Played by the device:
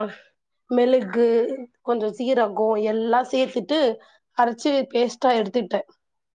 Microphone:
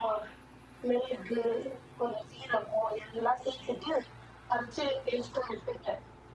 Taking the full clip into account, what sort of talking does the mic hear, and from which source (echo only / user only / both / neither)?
echo only